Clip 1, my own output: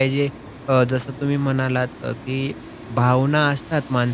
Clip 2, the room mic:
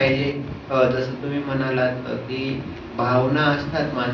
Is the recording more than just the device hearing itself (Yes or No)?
No